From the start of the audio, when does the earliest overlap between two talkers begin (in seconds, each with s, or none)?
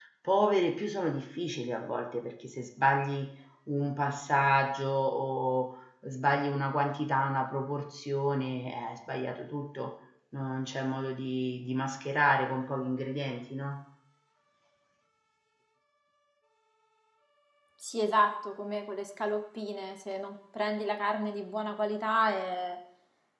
none